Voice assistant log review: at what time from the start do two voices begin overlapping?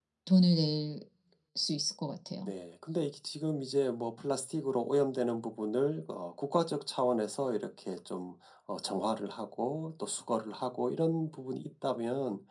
none

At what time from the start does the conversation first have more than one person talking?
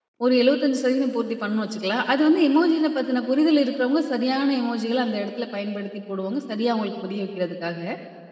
none

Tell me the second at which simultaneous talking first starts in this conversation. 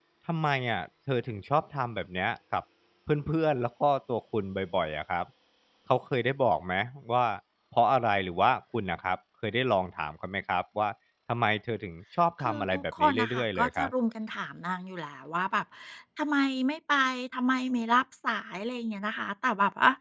12.4 s

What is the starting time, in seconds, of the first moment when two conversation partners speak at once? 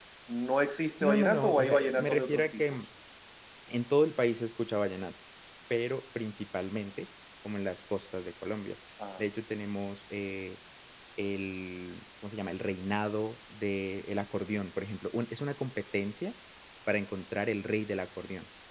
1.0 s

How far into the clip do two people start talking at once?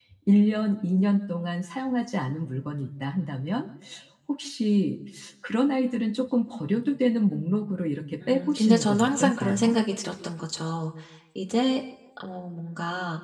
8.2 s

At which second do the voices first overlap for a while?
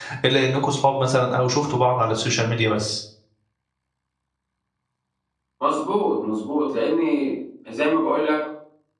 none

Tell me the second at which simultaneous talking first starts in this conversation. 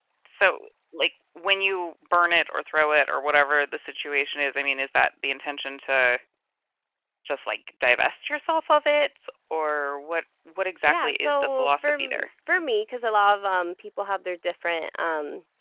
10.9 s

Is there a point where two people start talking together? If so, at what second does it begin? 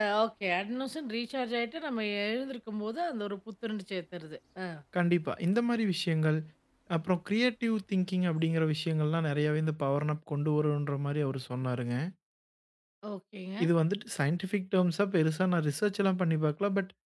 none

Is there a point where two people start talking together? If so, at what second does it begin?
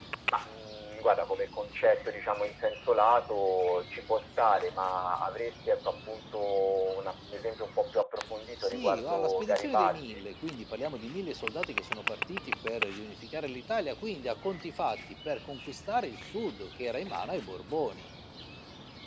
8.6 s

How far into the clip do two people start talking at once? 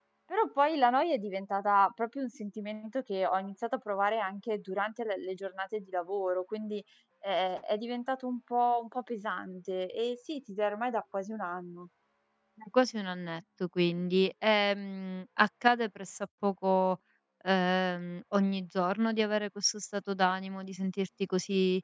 none

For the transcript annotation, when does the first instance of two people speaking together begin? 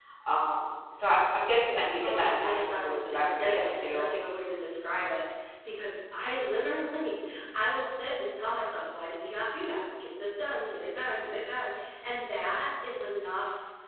2.0 s

